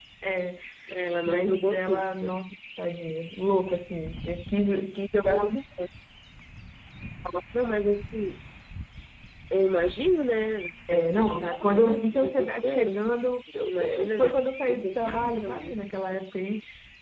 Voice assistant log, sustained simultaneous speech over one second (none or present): present